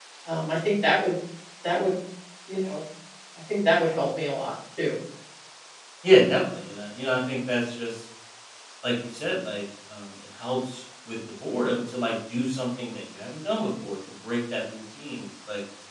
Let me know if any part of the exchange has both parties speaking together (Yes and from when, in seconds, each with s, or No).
No